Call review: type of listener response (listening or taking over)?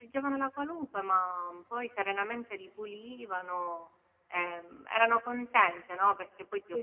taking over